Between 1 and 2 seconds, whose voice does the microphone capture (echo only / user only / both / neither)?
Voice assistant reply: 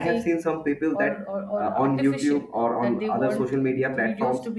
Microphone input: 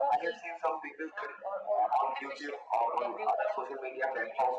echo only